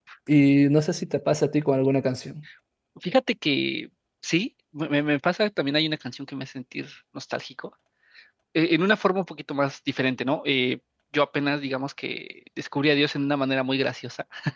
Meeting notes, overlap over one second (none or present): none